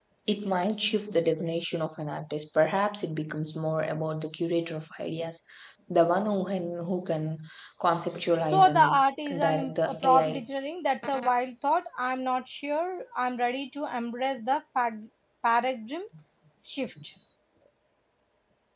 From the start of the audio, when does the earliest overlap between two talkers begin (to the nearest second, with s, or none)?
8 s